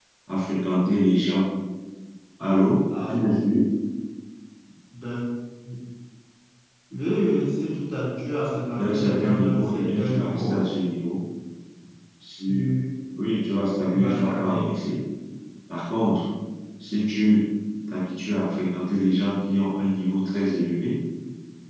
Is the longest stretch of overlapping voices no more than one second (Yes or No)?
No